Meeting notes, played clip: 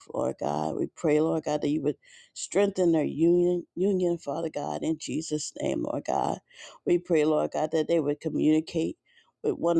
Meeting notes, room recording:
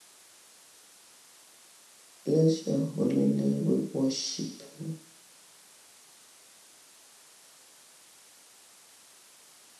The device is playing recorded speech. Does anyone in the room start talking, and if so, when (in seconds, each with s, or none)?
2.2 s